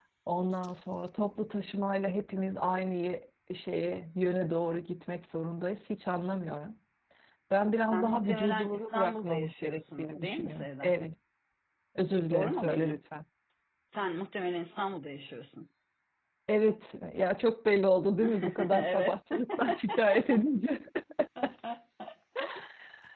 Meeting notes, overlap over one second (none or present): present